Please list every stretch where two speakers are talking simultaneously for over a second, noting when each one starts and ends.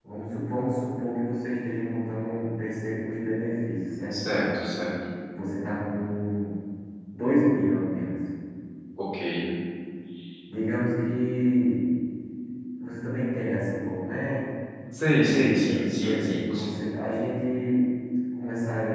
15.2-16.7

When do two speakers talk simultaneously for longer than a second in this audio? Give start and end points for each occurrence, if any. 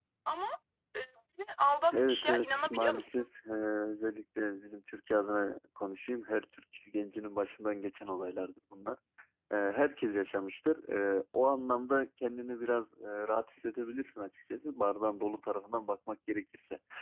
1.9-3.3

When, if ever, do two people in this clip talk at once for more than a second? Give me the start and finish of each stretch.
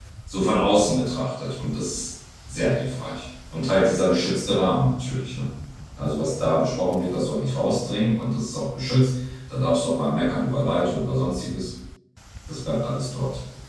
none

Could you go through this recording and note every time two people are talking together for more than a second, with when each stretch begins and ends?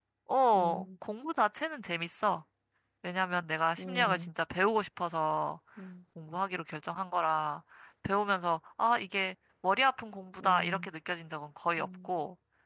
none

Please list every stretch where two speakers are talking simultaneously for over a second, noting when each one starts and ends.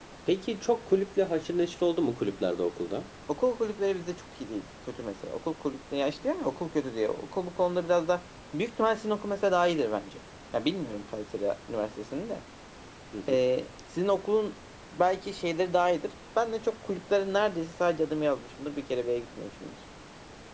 none

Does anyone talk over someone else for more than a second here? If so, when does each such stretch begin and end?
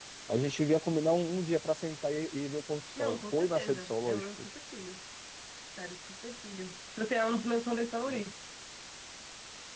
3.0-4.3

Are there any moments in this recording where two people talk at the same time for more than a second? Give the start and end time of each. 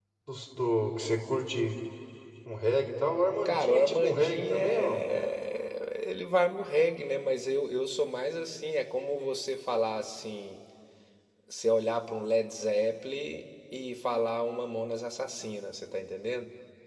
3.4-5.0

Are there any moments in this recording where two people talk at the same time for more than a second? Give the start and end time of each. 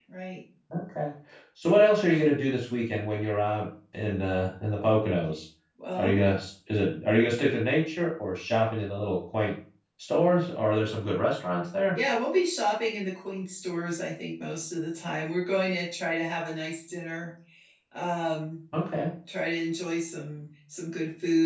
none

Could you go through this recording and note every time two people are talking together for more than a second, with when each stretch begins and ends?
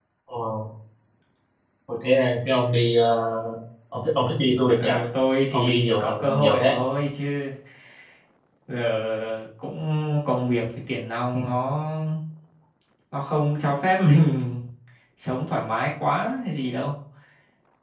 5.5-6.7

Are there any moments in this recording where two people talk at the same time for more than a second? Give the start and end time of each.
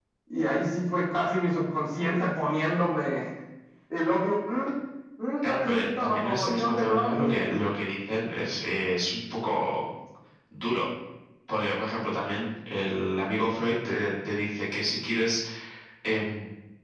5.4-7.5

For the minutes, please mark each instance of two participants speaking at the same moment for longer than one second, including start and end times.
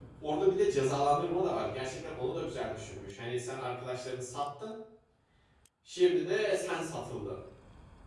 none

